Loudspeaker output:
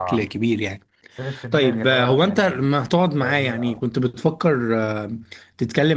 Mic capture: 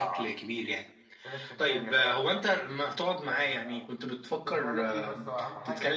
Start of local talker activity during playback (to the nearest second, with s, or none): 4 s